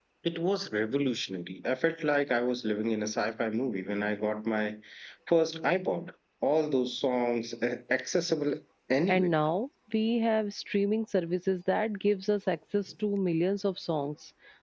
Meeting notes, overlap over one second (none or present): none